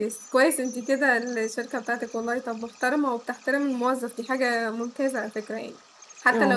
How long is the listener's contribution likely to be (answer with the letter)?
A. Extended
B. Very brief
B